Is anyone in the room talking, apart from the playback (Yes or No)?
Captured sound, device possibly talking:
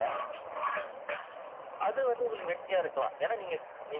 No